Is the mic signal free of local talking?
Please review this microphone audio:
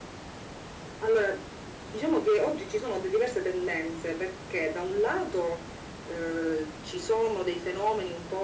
Yes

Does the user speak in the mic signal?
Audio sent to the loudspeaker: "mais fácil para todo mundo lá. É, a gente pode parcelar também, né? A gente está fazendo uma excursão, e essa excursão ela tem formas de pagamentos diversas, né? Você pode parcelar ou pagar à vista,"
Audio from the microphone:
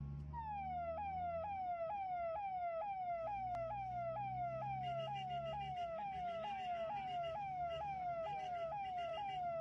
No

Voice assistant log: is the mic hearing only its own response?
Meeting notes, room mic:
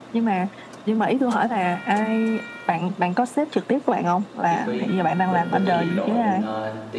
No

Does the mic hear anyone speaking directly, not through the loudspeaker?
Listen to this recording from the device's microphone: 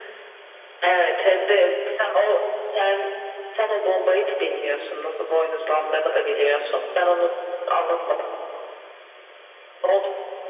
No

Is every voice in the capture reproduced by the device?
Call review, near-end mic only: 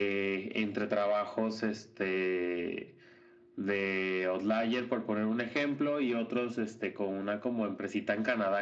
Yes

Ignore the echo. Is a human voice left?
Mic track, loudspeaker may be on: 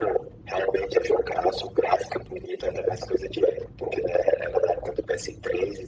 No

